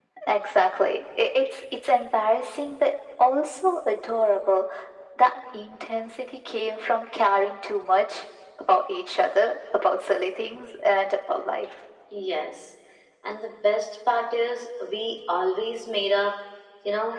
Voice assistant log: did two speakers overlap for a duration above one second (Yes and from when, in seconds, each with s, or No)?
No